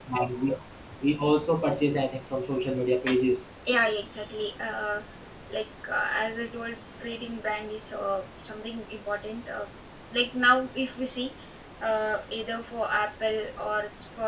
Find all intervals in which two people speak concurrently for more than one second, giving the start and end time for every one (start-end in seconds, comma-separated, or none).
none